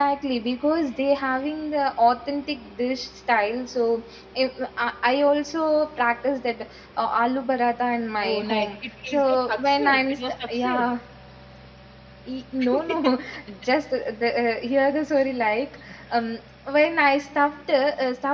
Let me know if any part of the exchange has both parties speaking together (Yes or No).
Yes